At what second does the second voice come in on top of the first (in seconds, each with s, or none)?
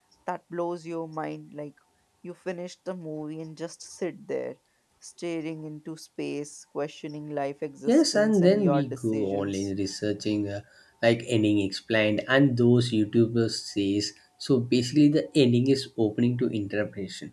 7.9 s